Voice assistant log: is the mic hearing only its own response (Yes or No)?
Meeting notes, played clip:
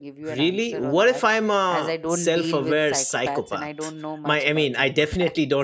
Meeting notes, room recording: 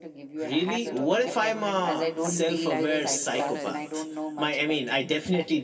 No